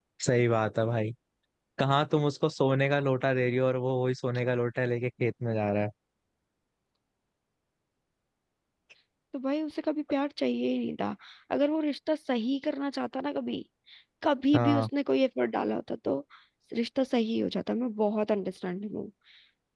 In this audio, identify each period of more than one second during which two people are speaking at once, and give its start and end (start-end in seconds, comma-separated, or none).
none